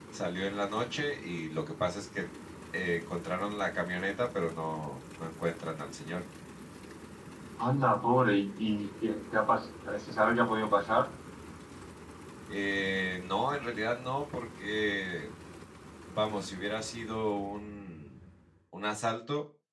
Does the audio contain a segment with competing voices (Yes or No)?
No